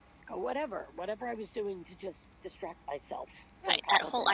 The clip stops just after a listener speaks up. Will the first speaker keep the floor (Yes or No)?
No